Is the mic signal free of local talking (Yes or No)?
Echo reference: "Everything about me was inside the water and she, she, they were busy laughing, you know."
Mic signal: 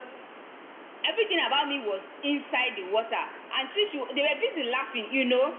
Yes